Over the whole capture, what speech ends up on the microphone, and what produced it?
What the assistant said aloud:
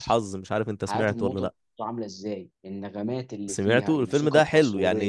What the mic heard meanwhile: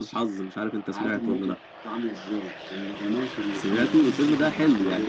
echo only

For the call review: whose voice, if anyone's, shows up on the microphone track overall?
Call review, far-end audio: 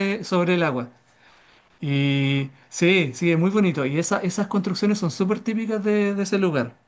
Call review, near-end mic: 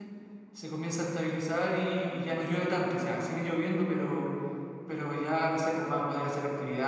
user only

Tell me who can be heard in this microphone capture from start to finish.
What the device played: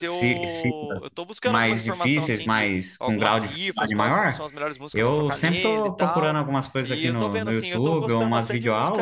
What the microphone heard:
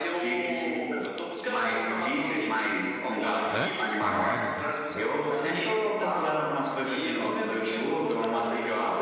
both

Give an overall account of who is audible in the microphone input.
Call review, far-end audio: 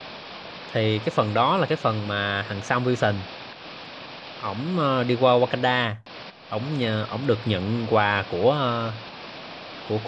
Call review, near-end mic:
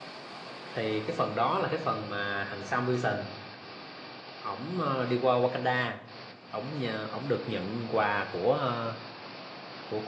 echo only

